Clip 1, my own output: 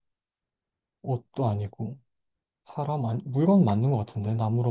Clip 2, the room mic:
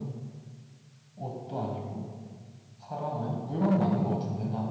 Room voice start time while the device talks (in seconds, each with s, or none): none